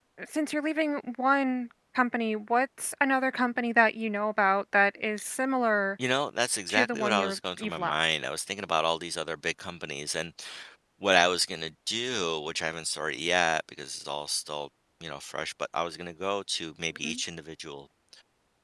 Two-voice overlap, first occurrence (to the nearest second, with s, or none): 7 s